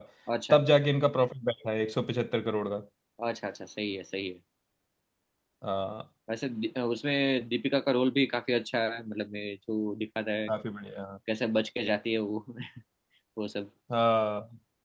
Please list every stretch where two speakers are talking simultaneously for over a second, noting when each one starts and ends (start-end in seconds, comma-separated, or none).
none